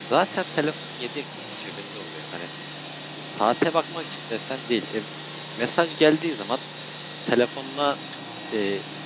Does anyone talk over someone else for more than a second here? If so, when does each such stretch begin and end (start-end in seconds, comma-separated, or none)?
none